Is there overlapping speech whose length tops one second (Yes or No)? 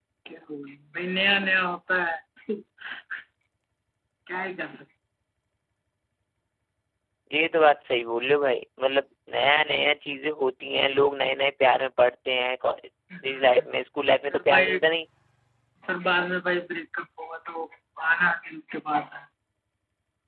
No